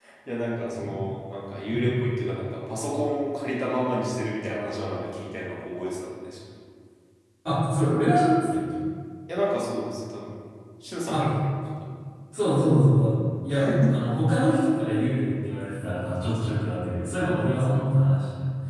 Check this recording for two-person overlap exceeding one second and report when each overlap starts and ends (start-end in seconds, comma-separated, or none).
none